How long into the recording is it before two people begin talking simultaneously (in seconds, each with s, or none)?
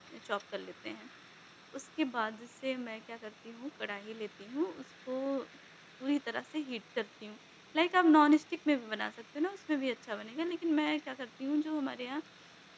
none